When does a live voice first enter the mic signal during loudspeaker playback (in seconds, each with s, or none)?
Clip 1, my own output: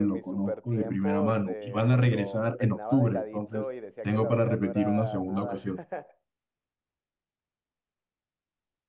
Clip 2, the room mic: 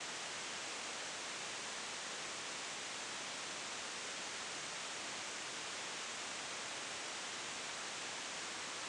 none